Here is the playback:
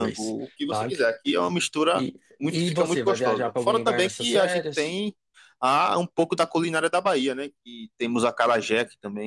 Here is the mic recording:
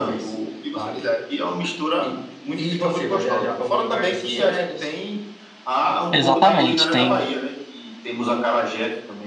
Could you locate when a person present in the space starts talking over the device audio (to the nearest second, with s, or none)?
6 s